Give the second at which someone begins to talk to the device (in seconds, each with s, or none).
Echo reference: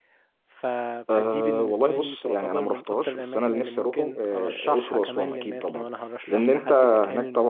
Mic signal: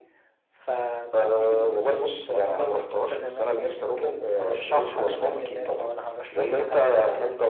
none